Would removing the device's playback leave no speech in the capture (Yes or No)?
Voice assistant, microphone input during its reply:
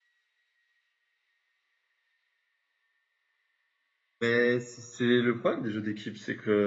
No